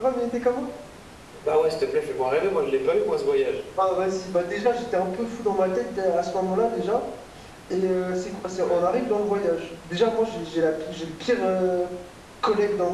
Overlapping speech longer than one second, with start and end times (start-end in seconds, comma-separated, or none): none